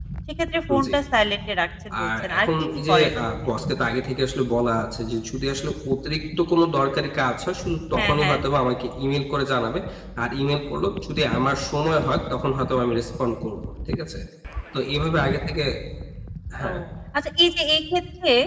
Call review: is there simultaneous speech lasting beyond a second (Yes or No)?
Yes